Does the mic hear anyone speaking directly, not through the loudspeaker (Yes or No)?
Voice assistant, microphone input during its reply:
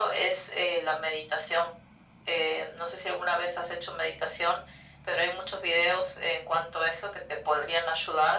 No